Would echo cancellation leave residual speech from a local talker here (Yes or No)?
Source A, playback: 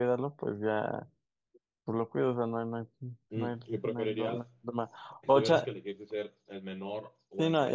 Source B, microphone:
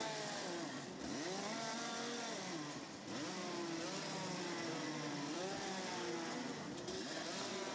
No